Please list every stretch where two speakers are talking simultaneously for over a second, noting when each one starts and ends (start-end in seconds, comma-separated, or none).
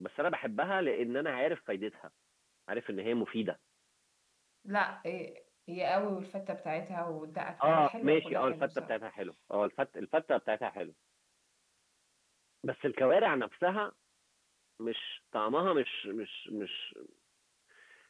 7.6-8.9